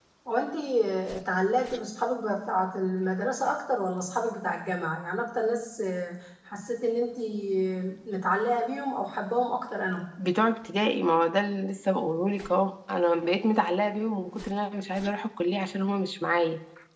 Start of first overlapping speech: none

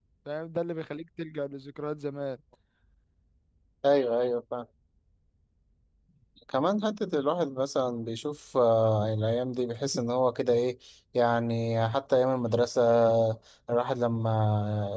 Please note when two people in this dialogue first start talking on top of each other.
none

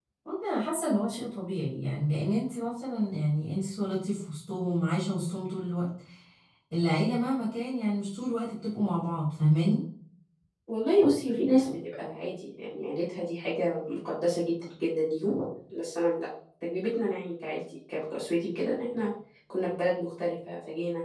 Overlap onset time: none

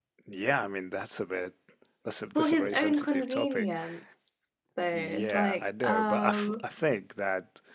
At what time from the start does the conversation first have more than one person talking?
2.4 s

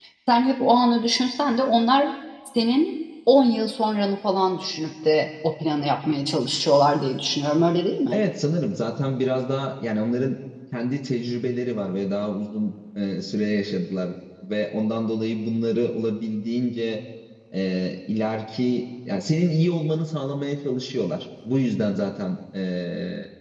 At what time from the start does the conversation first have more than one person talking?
none

